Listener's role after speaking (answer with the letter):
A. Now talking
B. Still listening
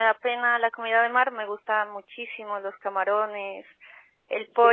B